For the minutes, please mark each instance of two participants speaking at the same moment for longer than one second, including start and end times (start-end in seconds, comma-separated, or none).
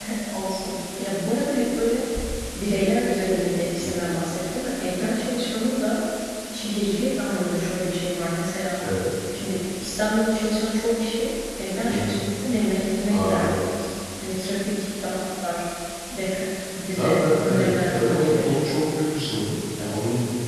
16.9-18.6